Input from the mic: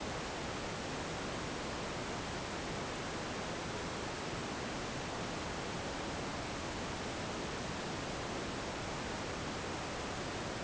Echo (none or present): none